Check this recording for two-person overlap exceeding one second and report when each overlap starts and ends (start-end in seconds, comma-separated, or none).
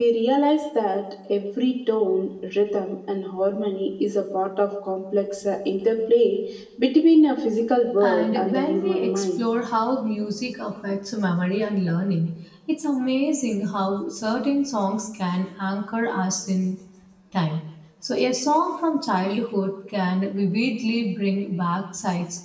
8.0-9.5